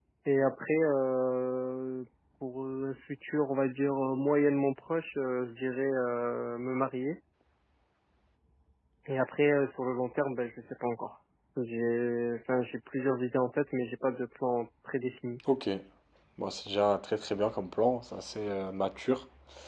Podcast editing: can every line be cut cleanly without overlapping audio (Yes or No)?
Yes